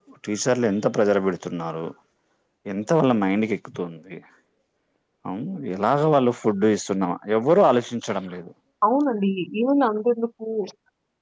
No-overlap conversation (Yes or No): Yes